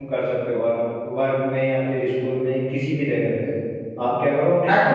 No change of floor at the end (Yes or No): No